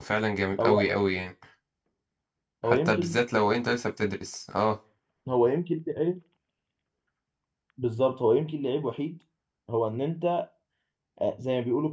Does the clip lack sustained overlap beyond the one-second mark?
Yes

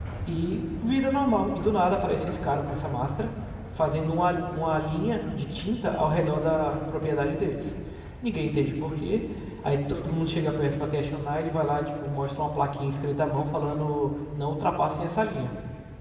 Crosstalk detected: No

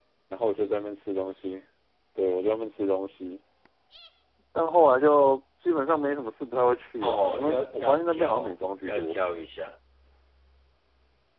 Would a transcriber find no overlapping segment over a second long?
No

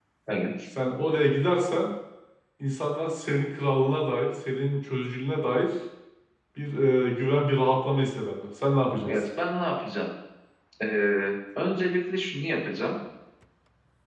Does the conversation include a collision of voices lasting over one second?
No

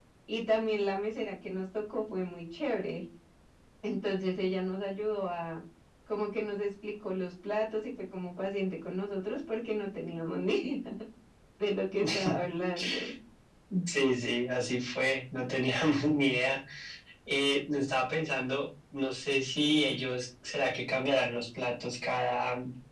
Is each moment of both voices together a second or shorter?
Yes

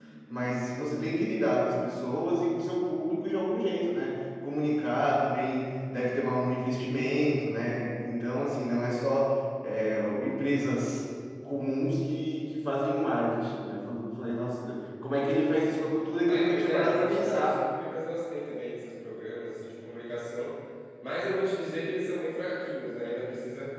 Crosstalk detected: Yes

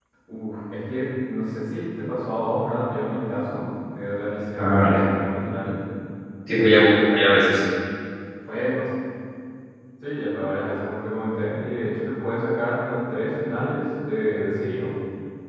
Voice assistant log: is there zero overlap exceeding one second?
Yes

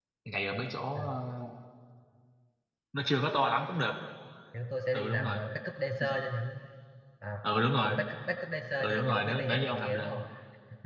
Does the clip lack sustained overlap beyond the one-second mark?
No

